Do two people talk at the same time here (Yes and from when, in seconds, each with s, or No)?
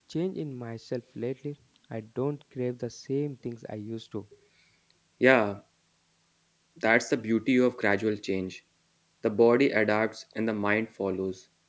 No